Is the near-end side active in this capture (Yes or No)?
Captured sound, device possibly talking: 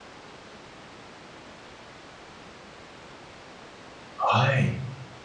Yes